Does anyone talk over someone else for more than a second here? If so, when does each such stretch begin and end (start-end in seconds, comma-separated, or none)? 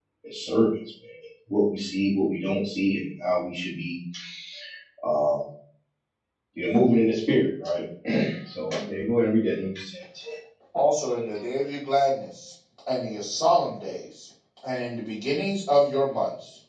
none